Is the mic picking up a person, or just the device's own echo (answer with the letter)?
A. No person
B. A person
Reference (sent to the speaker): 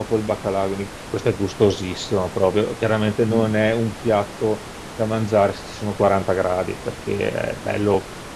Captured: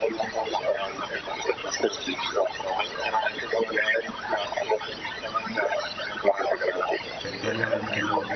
B